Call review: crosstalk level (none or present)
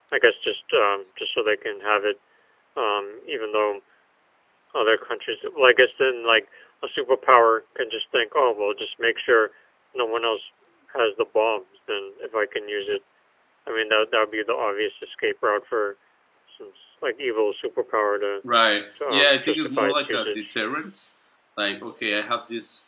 present